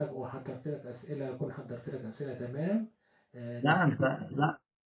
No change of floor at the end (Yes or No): No